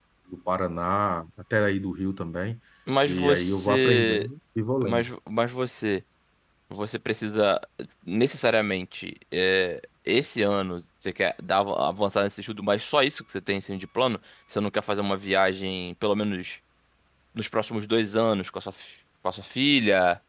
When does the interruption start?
3.0 s

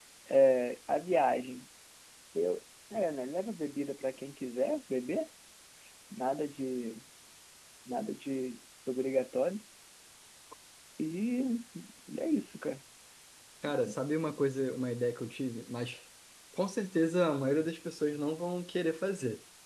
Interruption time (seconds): none

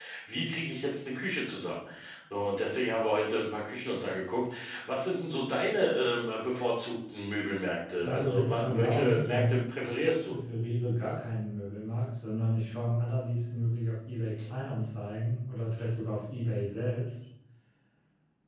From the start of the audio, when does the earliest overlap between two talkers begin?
8.1 s

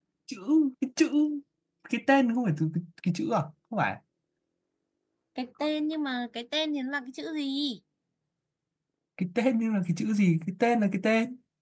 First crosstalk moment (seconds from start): none

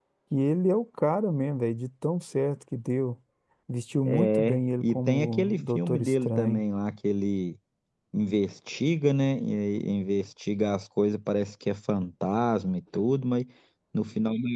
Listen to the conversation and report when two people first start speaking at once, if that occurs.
4.0 s

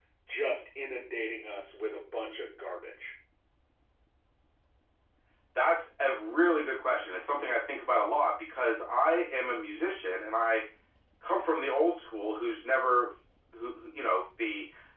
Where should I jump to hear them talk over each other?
none

